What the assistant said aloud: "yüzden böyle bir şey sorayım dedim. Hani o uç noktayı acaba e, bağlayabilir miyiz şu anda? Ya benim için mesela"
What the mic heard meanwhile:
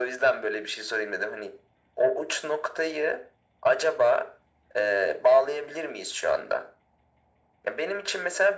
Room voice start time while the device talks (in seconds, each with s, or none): none